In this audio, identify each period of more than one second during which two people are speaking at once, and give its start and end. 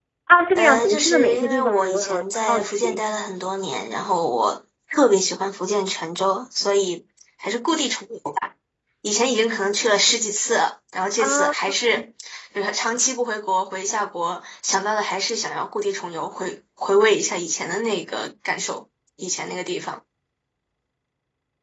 0.6-3.1

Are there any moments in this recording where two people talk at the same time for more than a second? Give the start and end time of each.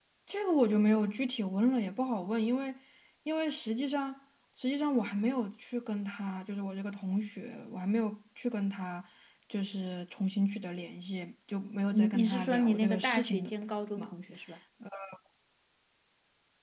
11.9-13.5

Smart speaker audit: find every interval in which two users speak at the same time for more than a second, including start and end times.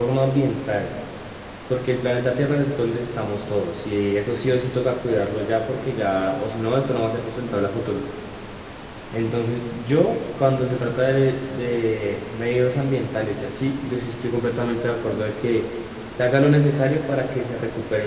none

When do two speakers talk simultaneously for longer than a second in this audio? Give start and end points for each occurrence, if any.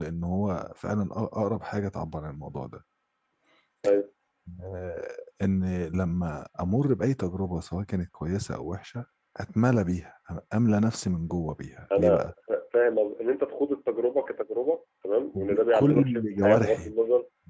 15.4-16.9

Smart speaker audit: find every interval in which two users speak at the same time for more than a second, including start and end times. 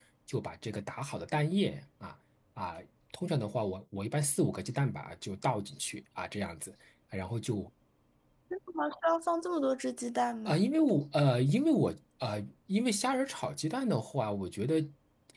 none

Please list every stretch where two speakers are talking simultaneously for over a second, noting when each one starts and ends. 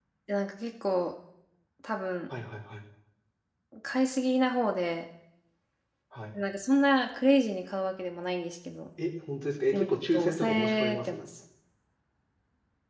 9.7-11.2

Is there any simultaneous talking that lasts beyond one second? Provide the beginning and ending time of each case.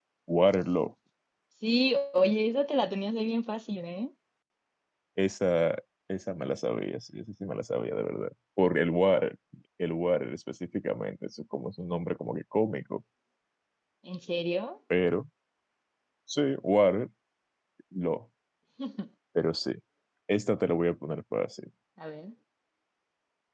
none

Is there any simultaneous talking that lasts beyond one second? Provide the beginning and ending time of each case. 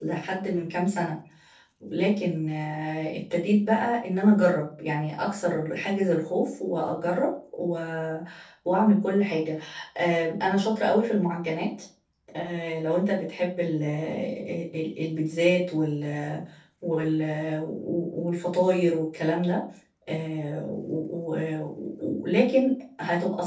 none

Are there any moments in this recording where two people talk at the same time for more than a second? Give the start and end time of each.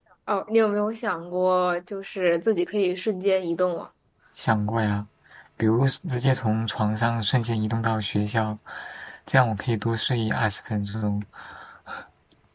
none

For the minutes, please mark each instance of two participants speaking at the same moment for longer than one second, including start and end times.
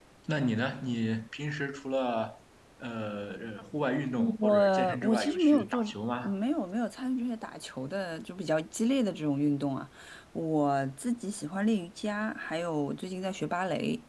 4.4-5.8

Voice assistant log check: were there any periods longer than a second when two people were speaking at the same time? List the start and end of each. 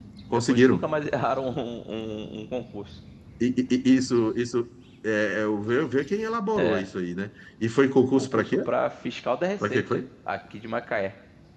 none

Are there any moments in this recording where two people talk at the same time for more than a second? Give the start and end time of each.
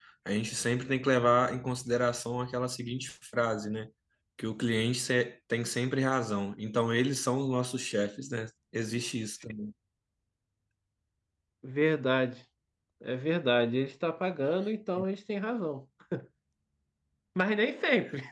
none

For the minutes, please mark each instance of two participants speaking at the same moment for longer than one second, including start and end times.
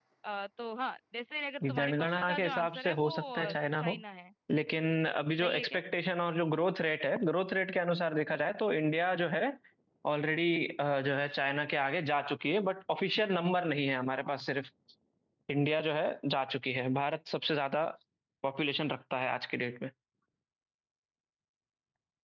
1.8-3.9

